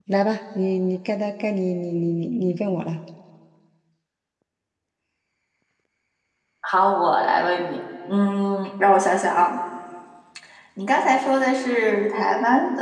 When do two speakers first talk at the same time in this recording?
none

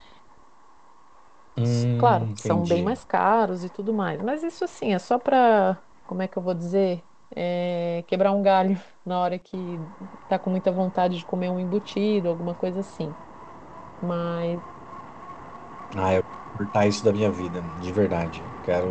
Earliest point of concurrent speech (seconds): 1.7 s

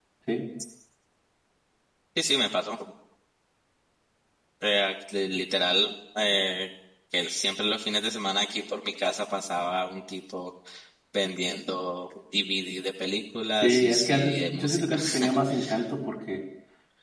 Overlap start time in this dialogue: 13.6 s

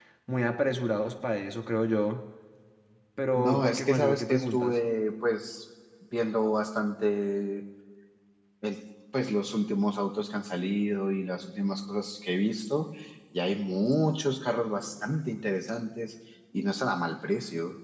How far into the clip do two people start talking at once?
3.4 s

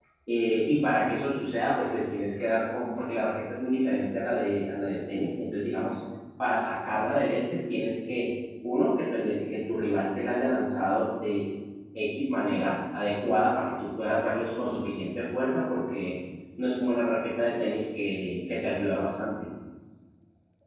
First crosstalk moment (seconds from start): none

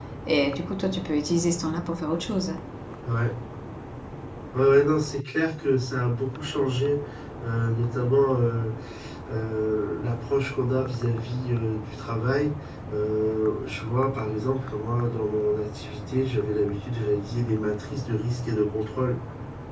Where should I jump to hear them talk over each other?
none

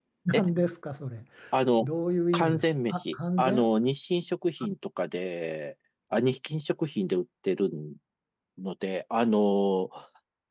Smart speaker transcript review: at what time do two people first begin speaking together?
2.3 s

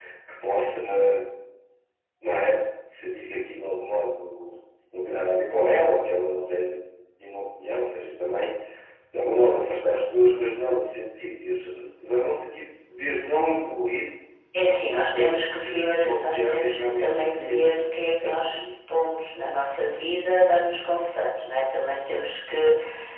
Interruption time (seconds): 14.8 s

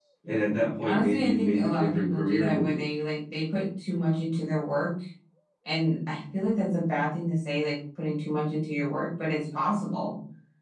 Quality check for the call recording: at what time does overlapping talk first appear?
0.8 s

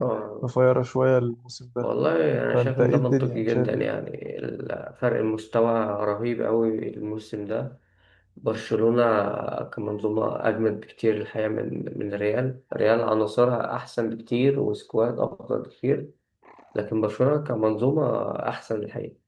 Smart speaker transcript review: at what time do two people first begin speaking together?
2.5 s

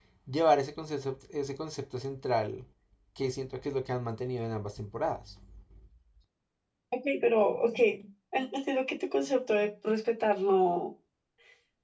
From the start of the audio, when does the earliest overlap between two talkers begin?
none

